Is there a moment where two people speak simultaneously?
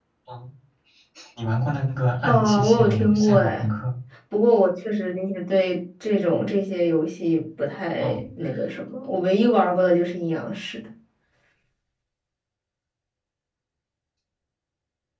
Yes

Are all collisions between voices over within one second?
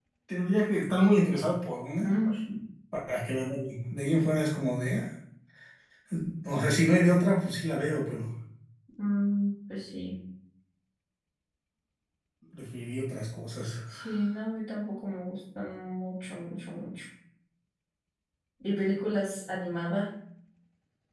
Yes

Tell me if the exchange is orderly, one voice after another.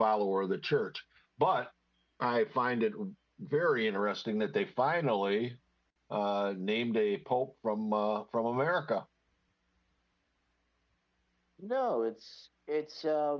Yes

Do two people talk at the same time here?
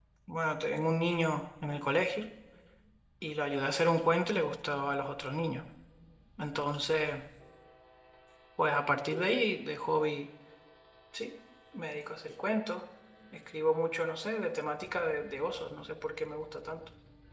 No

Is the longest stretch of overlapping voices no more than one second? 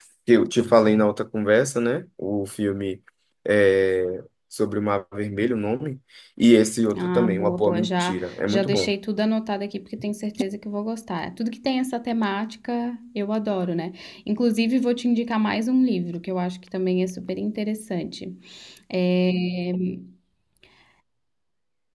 No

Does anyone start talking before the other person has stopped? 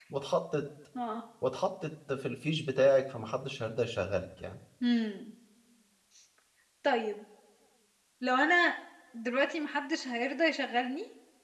No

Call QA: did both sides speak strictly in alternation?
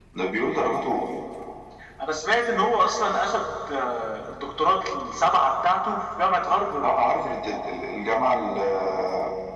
Yes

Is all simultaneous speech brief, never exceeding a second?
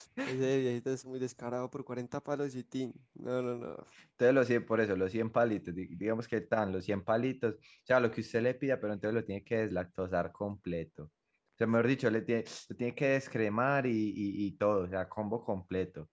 Yes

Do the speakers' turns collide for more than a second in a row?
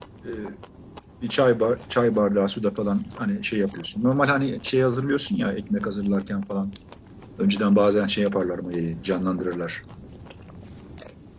No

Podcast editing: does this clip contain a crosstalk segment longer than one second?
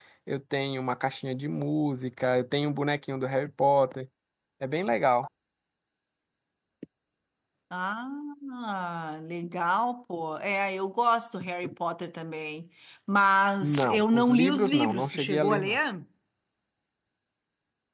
Yes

